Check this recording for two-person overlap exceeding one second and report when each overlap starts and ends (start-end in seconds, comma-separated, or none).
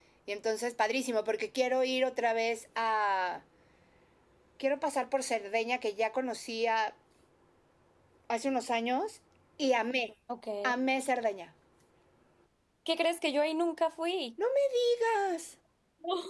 none